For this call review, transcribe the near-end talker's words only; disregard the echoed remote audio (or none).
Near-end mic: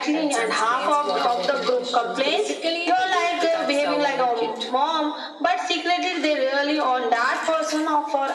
none